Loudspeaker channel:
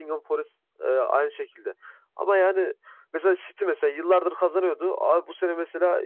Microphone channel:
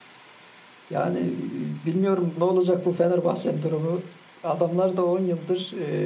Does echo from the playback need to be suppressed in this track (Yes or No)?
No